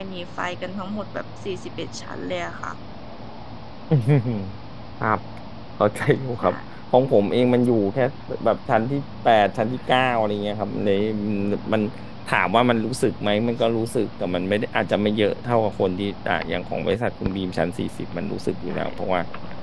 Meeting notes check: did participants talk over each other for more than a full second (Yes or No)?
No